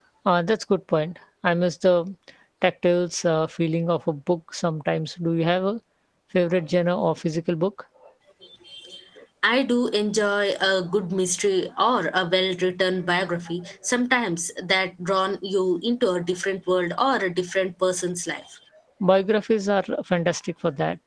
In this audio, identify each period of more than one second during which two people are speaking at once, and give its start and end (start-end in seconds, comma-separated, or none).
none